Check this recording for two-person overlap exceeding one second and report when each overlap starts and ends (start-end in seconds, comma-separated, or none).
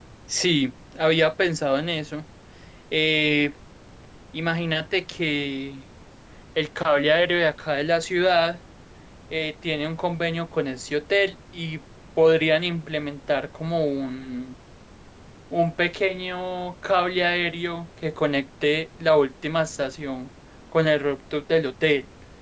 none